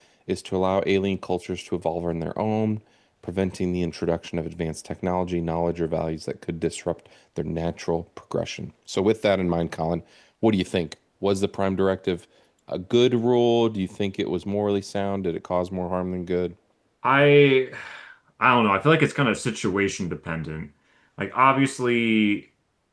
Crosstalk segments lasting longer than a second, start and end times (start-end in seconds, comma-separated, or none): none